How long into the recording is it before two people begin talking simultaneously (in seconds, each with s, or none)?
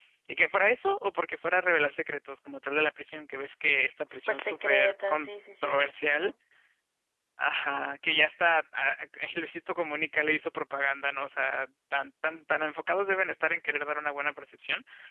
4.1 s